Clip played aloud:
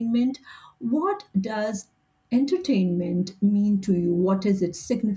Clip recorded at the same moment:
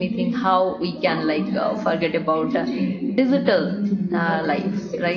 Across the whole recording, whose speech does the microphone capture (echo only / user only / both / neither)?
both